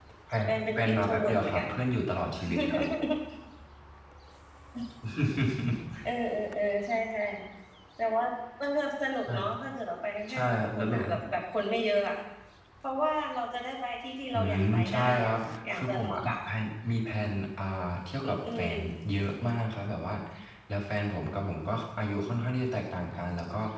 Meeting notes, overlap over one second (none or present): present